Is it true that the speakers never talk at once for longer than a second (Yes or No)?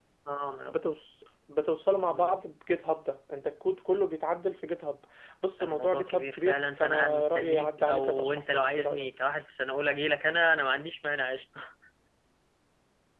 No